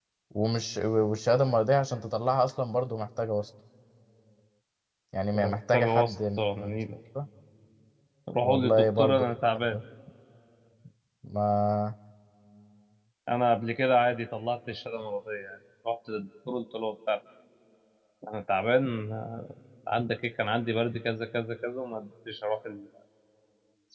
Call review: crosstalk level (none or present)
present